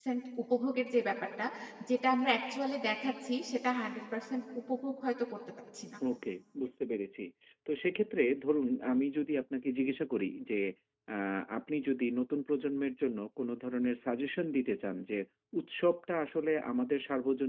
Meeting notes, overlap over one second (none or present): none